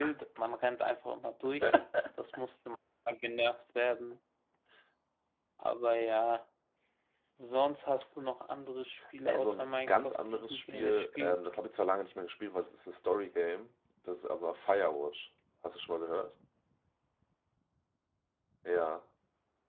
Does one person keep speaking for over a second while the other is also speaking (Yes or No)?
Yes